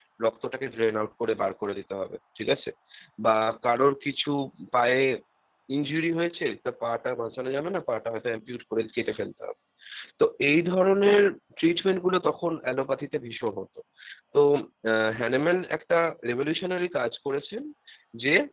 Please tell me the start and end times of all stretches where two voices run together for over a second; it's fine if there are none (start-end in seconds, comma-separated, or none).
none